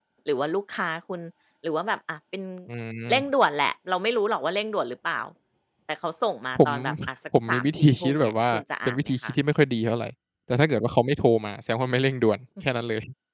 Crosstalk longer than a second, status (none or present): present